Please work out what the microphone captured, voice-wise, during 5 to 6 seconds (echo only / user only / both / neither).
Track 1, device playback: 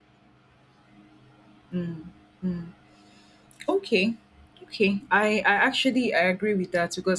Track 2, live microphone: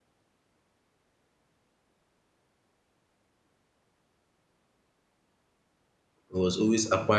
neither